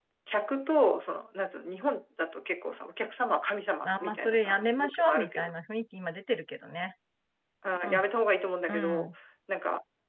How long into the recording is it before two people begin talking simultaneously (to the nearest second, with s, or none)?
4 s